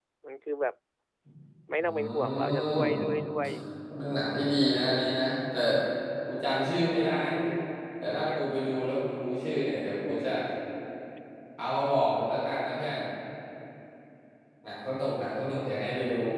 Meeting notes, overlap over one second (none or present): present